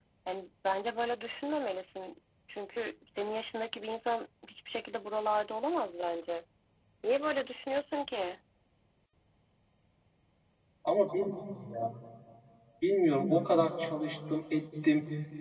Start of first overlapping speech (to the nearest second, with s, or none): none